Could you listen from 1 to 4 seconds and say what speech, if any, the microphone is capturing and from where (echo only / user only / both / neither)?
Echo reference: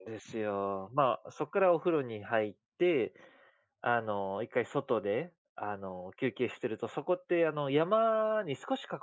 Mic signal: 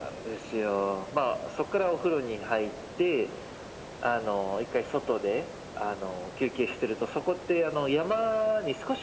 echo only